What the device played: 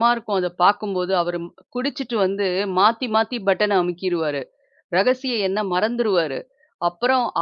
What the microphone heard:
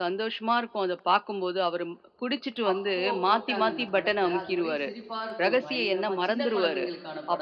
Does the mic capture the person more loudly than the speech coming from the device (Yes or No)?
No